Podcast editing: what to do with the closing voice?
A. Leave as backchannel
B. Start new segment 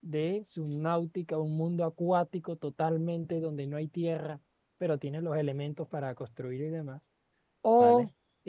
A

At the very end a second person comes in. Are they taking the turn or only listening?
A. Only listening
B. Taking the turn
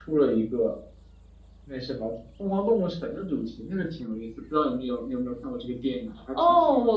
B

